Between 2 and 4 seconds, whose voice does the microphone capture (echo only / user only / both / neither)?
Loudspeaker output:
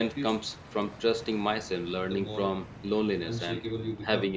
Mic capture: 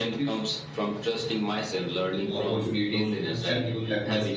both